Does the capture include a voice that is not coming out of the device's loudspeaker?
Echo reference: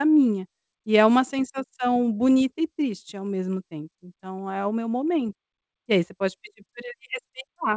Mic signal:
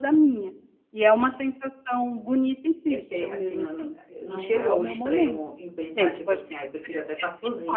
Yes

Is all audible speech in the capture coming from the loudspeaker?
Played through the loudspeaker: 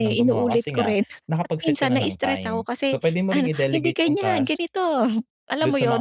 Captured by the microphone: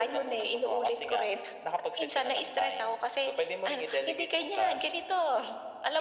Yes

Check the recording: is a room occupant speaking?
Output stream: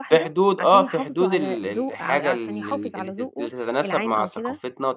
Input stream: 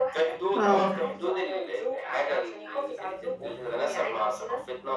Yes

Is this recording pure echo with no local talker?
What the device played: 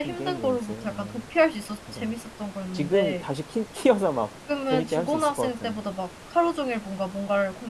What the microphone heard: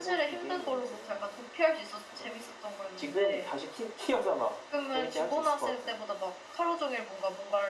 Yes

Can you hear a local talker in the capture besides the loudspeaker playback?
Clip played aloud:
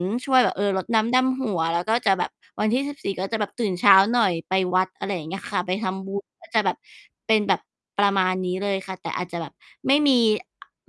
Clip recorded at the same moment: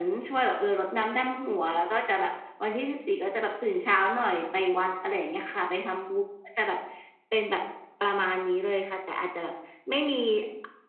No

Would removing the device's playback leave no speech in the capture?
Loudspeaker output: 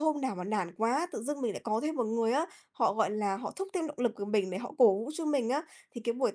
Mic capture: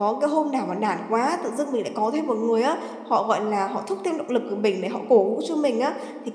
Yes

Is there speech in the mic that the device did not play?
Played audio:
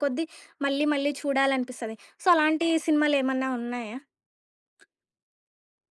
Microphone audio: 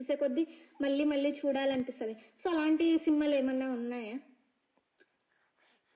No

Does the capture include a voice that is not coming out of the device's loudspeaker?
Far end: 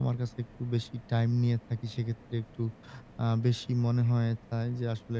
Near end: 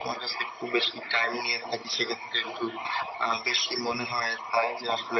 No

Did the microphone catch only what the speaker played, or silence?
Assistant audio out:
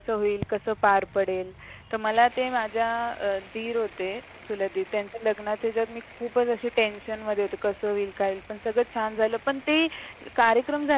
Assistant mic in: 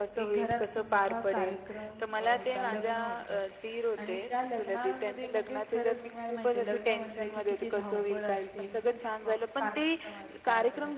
No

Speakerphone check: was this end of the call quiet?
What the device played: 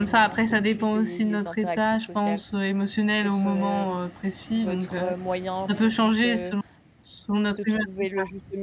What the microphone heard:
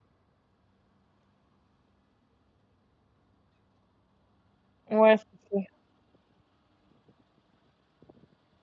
No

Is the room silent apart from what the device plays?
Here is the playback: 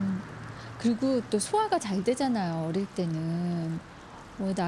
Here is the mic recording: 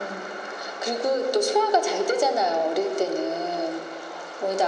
Yes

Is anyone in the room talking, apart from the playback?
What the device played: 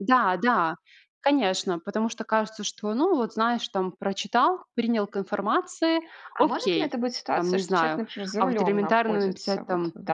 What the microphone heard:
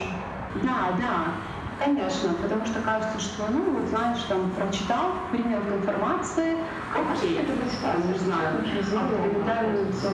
No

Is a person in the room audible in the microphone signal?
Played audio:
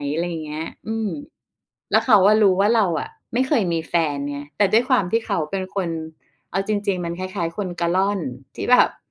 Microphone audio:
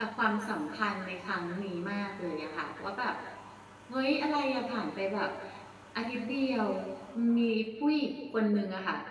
Yes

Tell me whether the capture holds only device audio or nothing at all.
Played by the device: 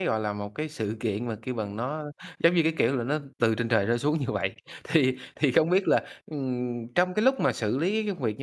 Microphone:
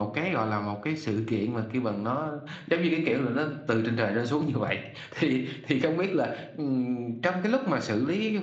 Yes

